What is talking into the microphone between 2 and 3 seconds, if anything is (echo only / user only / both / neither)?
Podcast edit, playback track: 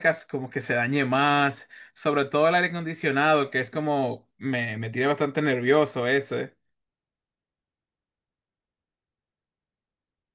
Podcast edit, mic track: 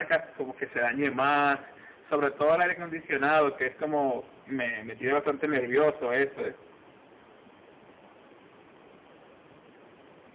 echo only